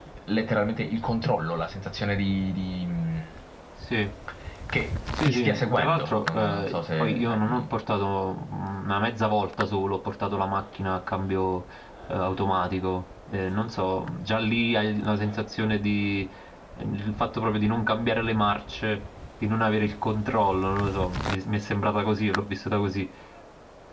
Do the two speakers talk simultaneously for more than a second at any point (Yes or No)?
Yes